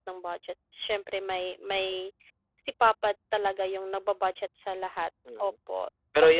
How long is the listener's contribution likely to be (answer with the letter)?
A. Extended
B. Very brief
A